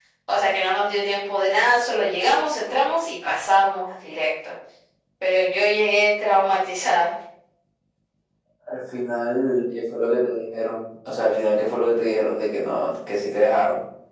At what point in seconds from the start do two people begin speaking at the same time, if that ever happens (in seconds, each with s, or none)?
none